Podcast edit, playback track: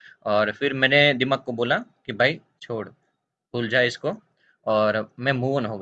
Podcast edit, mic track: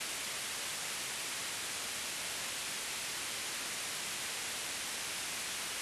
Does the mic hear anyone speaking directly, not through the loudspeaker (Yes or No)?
No